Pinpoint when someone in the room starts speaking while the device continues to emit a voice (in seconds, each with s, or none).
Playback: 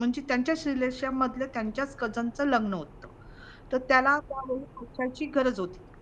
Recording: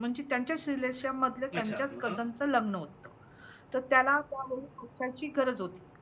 1.5 s